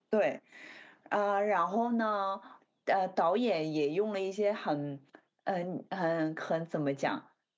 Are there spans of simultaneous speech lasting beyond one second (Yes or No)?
No